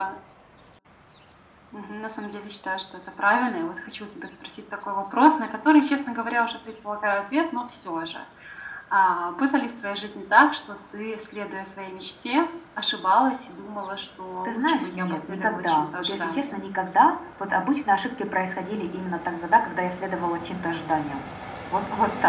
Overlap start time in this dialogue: 14 s

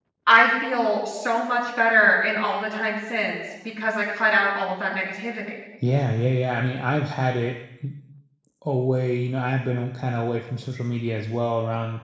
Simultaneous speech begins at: none

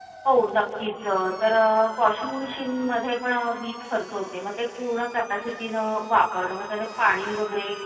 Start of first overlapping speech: none

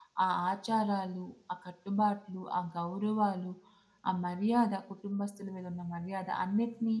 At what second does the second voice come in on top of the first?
none

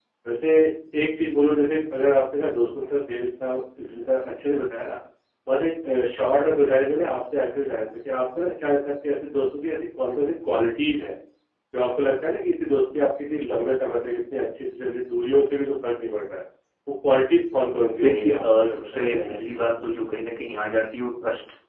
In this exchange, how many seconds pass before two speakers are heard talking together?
18 s

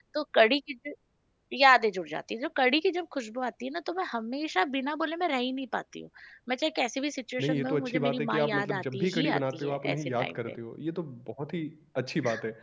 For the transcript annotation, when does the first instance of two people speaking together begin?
7 s

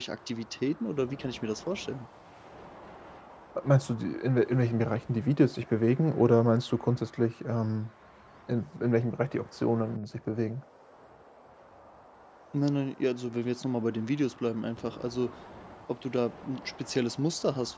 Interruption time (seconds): none

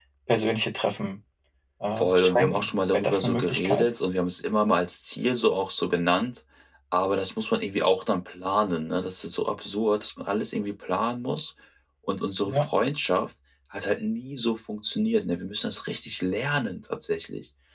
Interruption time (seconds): 2 s

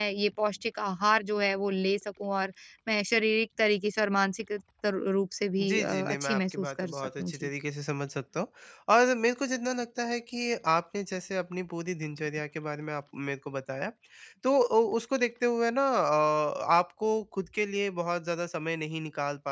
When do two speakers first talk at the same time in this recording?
6 s

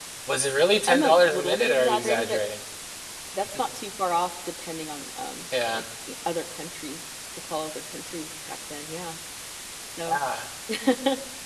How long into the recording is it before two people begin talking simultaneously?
1 s

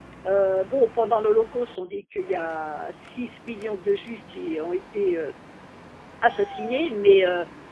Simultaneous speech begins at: none

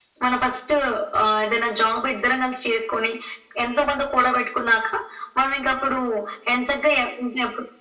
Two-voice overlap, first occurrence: none

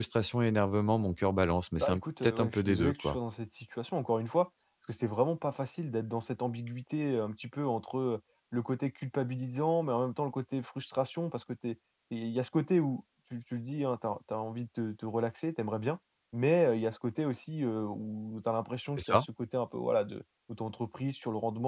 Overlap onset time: 2 s

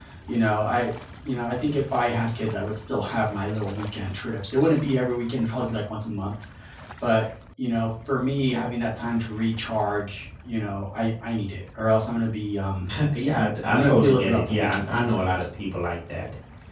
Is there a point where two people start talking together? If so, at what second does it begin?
14 s

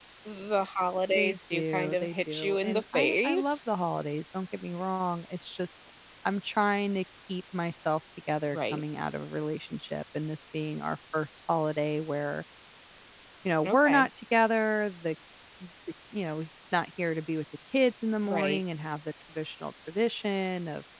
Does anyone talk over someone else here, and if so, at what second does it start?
1 s

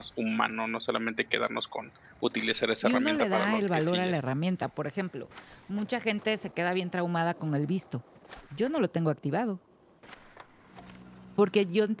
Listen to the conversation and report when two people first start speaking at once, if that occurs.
3 s

